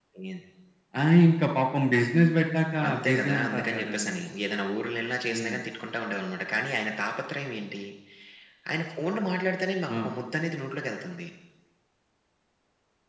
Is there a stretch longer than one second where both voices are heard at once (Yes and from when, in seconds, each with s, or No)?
Yes, from 2.9 s